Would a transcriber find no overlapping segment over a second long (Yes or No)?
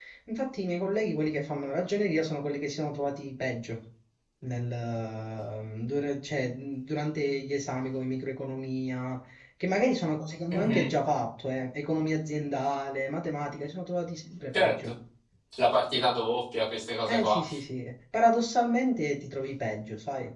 Yes